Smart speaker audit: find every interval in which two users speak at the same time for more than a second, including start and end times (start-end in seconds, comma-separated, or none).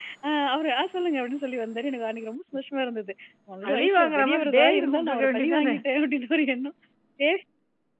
3.6-5.8